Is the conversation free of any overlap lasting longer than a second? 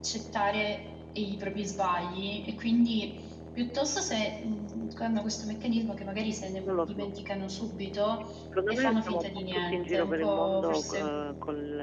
No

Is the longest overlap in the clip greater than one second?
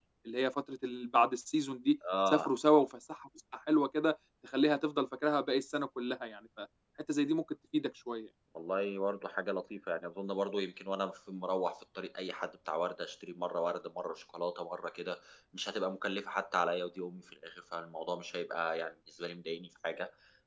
No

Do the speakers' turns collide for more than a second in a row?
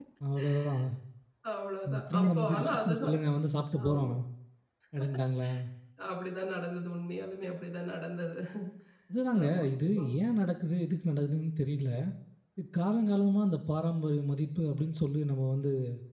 Yes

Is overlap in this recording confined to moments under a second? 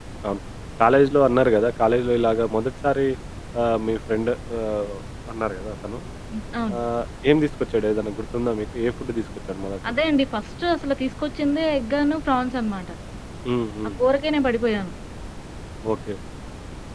Yes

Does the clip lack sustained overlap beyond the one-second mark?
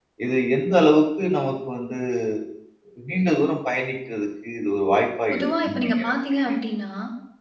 No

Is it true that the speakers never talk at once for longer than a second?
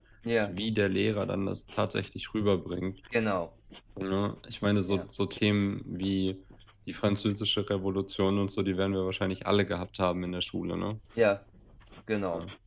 Yes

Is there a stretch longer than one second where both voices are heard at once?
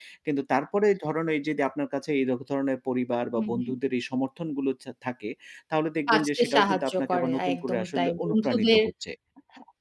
Yes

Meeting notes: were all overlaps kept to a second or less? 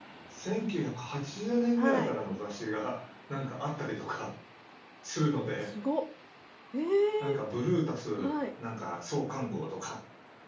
Yes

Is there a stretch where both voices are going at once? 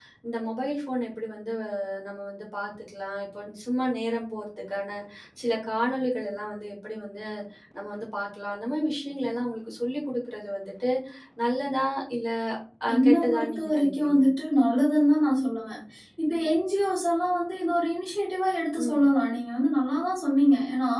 Yes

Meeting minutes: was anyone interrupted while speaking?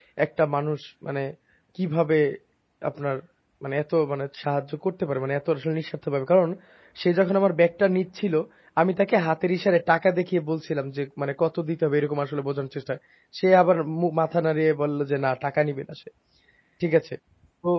No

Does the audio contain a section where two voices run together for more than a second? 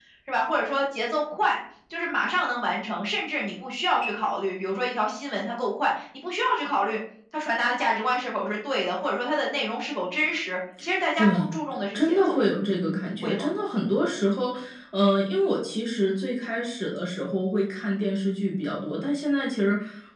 No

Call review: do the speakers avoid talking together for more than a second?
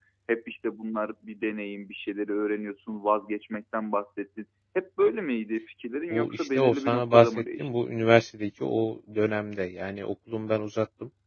No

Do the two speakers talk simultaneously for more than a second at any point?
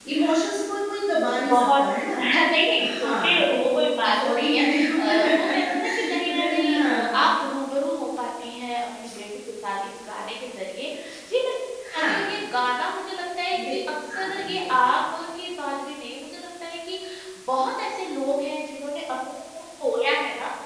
Yes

